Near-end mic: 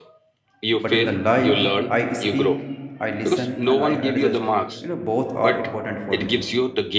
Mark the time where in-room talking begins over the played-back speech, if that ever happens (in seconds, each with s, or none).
0.7 s